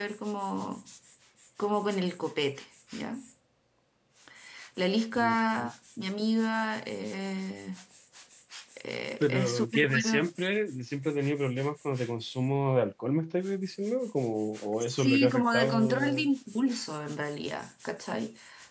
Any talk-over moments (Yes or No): Yes